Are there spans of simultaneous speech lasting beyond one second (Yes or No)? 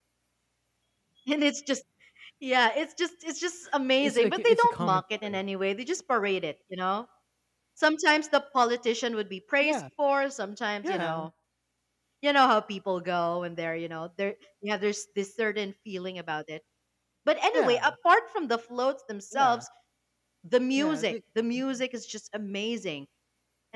Yes